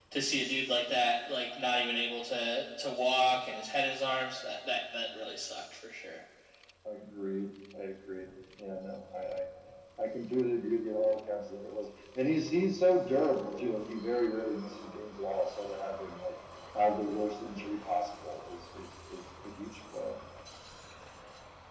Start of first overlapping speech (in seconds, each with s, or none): none